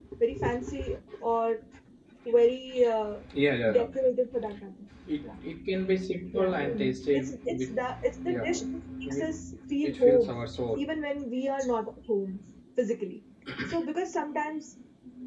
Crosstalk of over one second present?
Yes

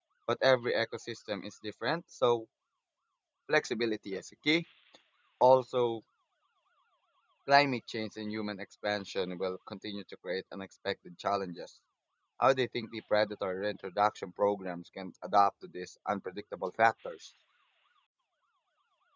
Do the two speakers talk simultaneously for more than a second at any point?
No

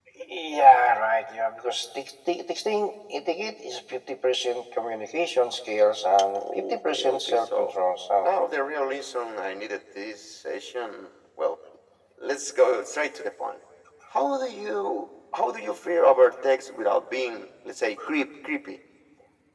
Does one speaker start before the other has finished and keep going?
Yes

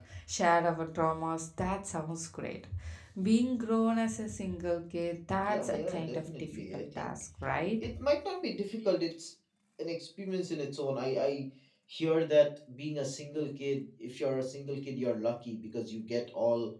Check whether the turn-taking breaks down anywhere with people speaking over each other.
Yes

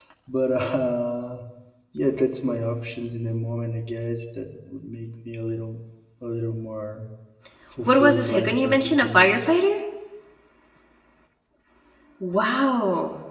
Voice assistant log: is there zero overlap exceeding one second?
No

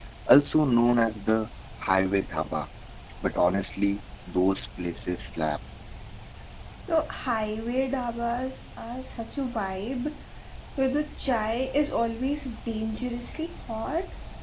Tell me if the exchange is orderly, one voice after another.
Yes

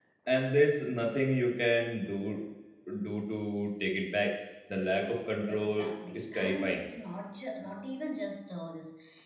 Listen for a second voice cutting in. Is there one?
Yes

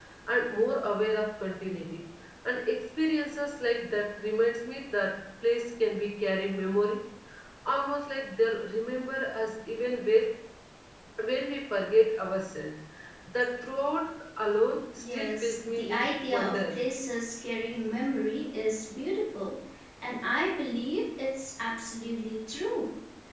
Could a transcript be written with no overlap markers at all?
No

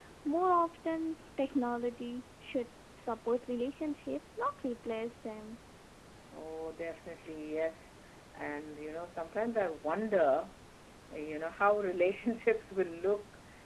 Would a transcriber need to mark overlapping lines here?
No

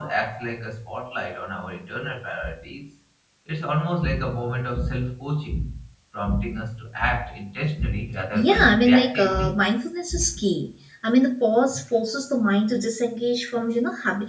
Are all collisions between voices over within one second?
No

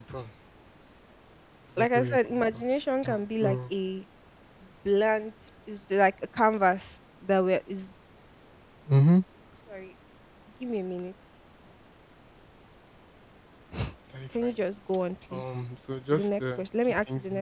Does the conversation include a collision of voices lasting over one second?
Yes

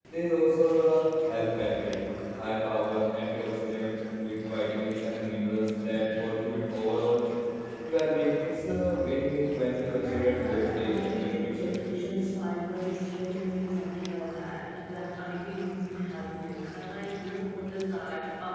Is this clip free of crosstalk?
No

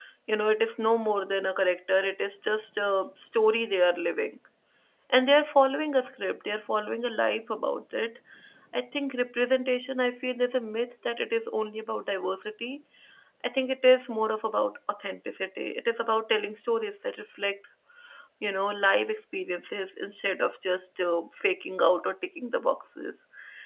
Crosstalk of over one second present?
No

